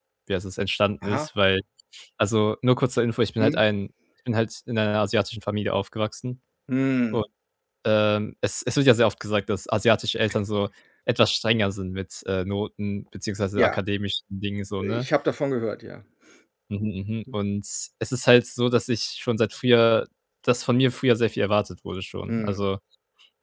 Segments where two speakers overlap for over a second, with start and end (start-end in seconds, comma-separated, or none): none